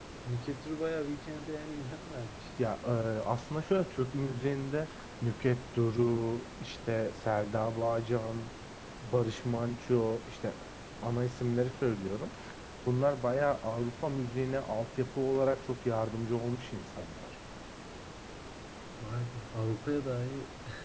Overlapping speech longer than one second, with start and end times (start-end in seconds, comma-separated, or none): none